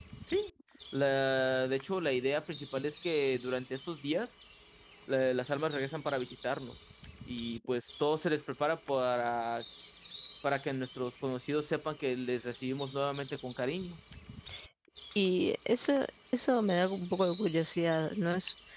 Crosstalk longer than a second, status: none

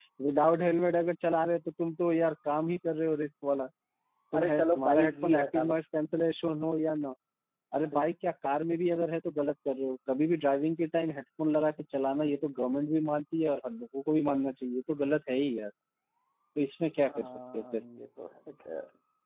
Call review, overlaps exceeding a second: present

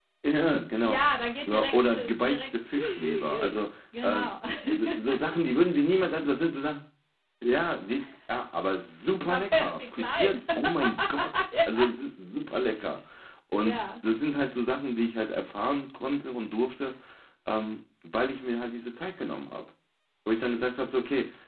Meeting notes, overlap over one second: present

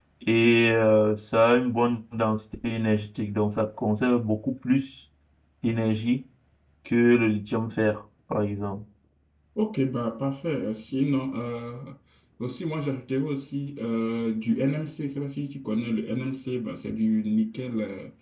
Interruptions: none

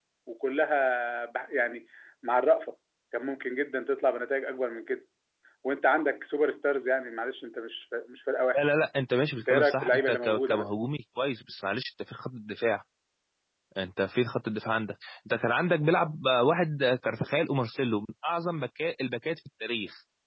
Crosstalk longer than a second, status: present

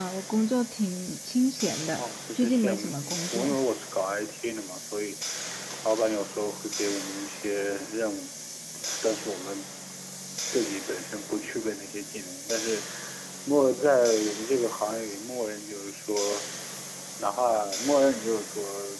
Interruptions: present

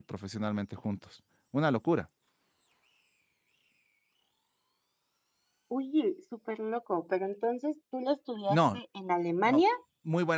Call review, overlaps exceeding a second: none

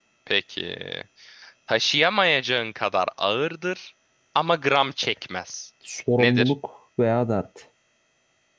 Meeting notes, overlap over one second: none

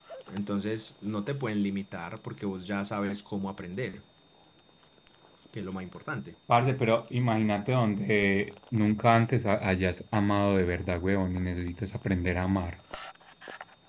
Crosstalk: none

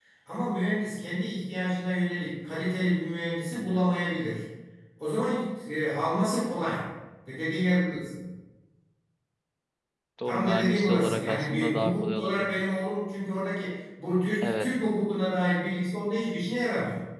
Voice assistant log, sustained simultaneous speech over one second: present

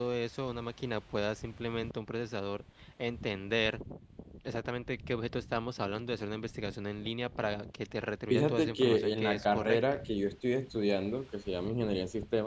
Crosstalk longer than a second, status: present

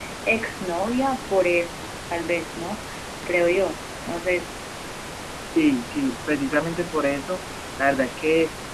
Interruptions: none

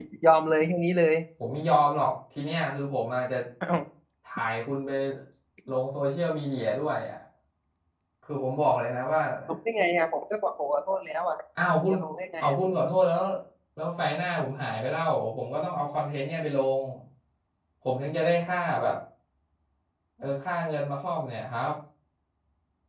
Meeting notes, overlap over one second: none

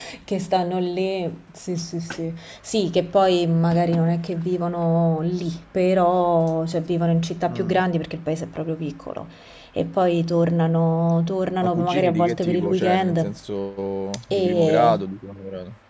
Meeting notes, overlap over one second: present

